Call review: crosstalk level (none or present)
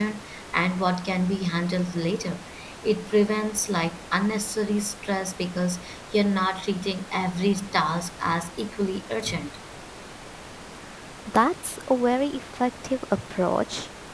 none